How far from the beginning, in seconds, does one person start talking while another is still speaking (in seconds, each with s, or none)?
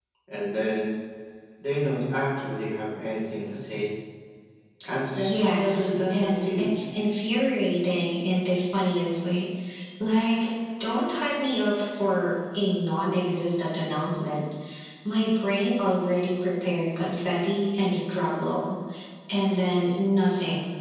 5.3 s